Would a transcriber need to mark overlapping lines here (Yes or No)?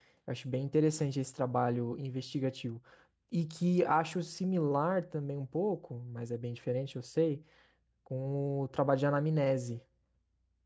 No